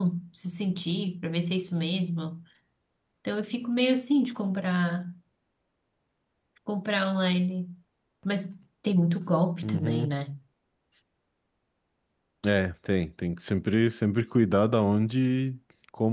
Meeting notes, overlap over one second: none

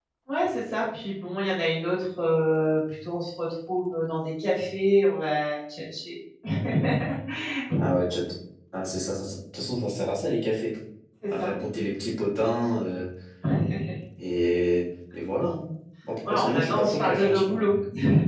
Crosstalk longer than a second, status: present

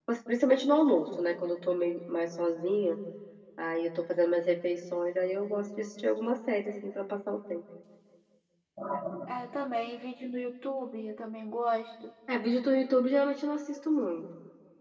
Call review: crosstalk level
none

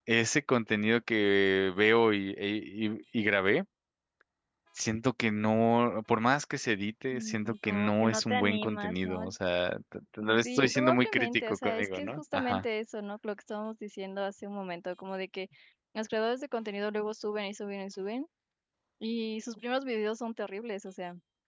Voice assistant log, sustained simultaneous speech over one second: present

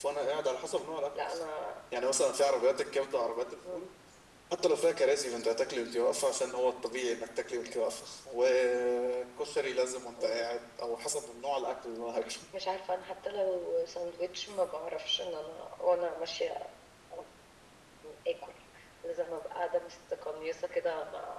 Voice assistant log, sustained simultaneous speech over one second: none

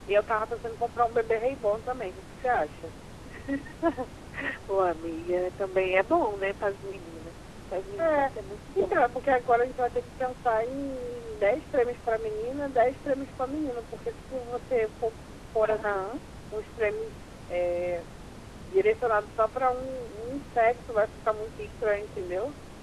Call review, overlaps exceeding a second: none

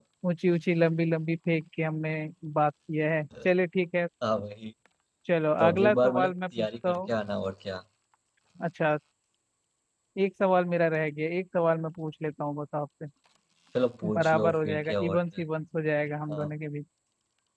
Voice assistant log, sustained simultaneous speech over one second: present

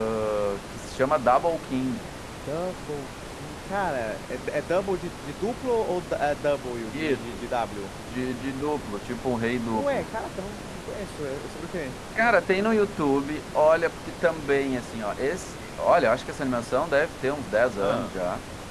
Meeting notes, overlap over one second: none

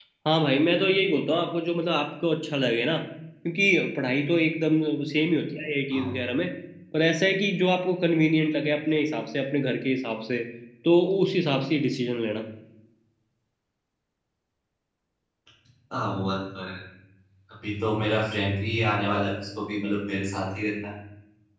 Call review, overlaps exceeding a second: none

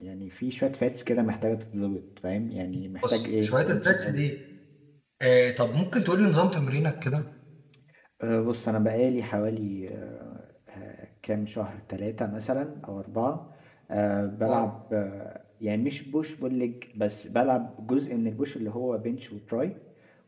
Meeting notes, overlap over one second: present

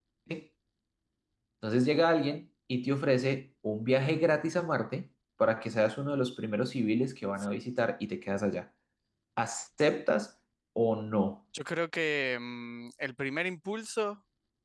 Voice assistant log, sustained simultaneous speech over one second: none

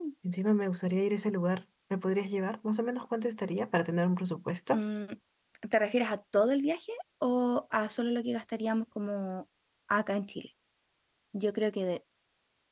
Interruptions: none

